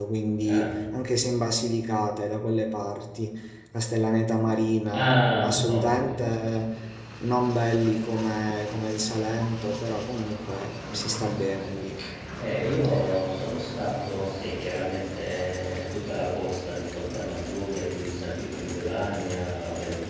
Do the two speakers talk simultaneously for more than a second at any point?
Yes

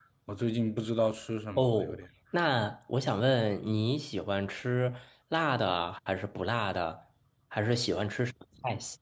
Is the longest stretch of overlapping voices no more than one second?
Yes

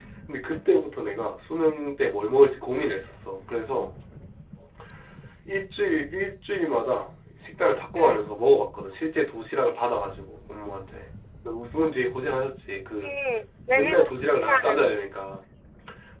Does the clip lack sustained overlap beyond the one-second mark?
No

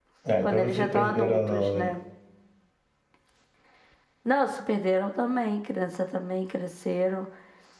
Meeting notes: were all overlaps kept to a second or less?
No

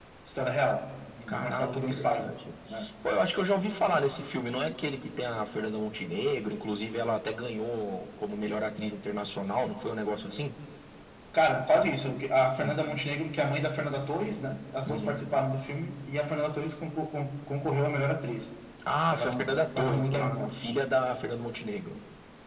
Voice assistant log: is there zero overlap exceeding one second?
No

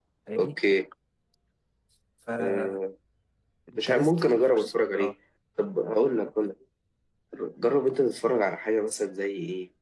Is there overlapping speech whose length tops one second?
Yes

